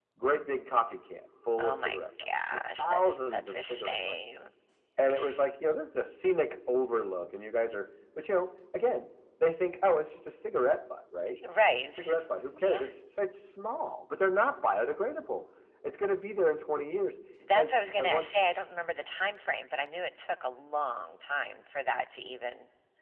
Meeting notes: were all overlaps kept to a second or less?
No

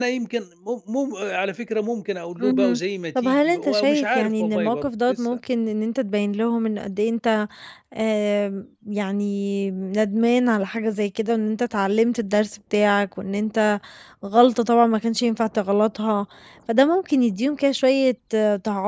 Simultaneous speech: Yes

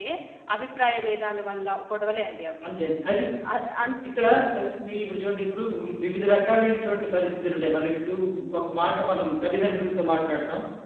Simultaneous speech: No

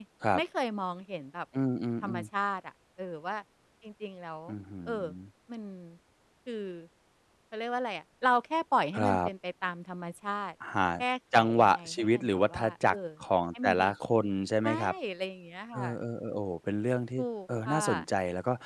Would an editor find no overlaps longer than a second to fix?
No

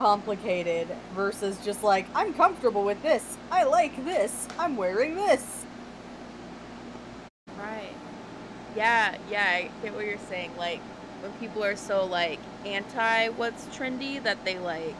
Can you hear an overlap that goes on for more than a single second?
No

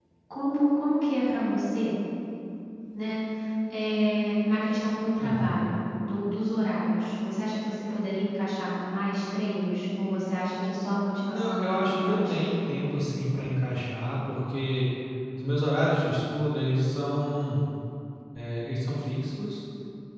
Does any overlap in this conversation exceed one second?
Yes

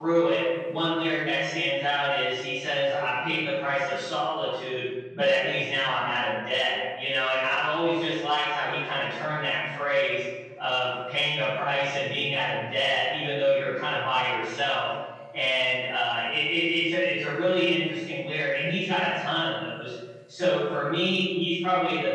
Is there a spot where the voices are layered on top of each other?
No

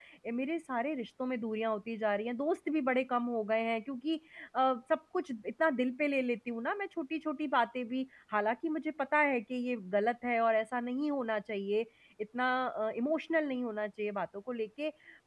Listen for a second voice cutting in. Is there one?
No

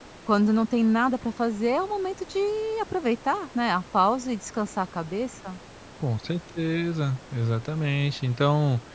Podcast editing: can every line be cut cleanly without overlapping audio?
Yes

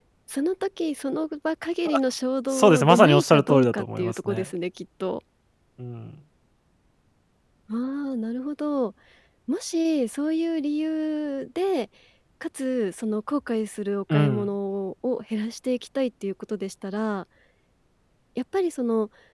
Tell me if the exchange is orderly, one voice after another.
No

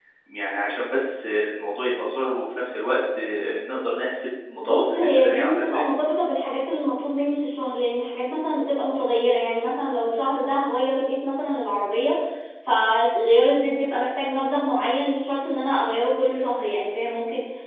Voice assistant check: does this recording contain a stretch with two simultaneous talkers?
Yes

